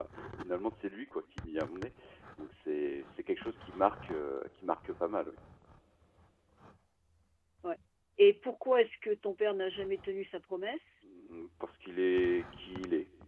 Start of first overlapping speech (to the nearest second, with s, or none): none